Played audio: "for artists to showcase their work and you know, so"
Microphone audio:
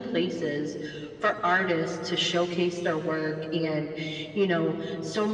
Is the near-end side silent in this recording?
Yes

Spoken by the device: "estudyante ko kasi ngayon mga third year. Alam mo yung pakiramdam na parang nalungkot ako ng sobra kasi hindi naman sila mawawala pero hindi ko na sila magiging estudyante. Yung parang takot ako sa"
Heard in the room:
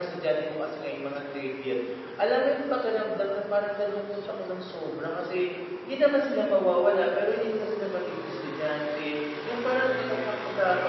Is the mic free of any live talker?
Yes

